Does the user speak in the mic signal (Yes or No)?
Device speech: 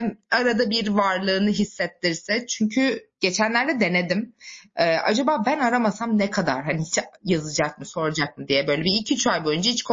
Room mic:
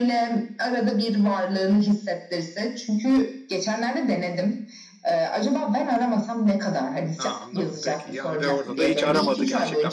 Yes